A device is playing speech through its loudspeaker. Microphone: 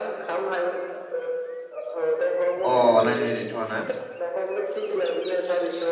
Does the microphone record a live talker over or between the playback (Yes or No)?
Yes